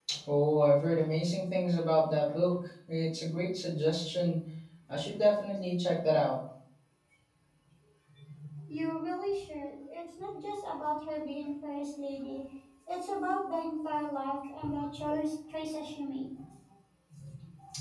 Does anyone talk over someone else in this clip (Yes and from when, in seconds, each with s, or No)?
No